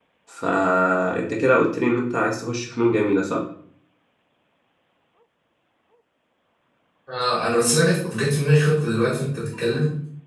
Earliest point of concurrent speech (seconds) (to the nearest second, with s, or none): none